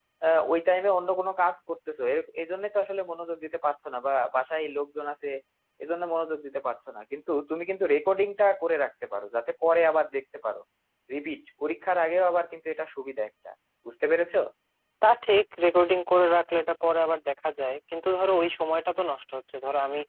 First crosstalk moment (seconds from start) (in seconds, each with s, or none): none